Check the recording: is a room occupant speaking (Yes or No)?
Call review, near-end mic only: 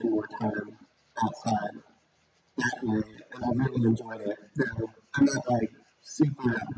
No